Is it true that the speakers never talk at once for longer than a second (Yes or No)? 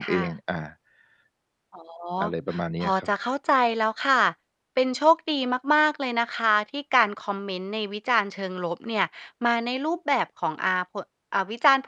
Yes